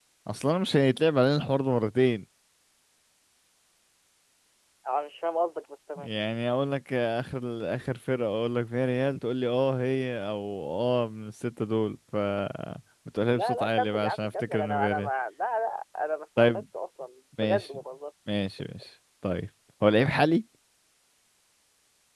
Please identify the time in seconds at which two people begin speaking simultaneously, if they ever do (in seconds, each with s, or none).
13.3 s